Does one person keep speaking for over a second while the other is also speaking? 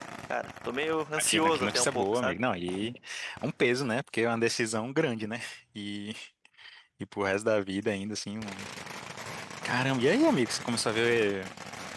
Yes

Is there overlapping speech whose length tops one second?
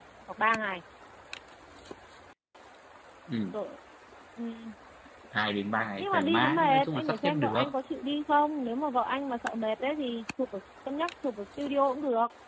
Yes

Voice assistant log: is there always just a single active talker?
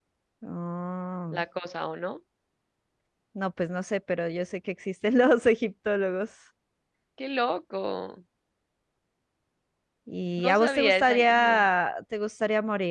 No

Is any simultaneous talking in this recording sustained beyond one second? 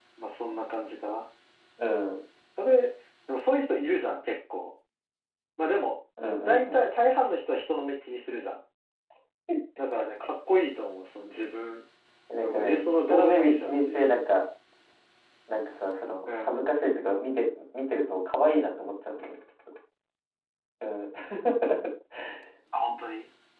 Yes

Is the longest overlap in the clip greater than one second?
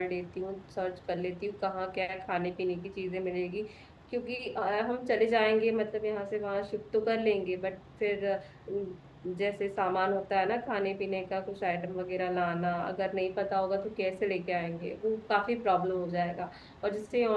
No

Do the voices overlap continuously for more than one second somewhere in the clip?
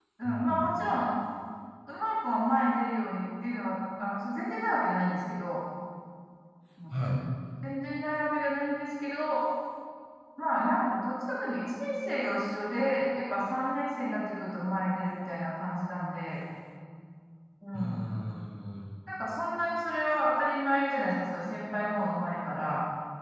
No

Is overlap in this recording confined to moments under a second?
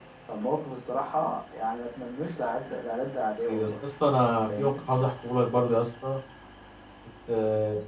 Yes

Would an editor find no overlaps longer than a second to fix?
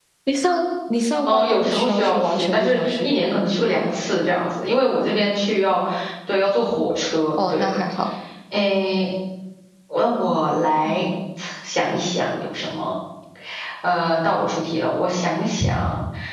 No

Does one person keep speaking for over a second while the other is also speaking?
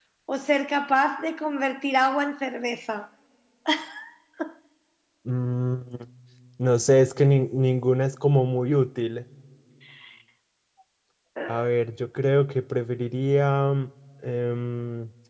No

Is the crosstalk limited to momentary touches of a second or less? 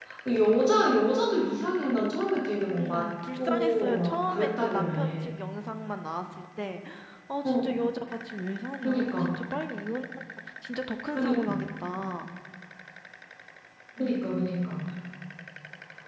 No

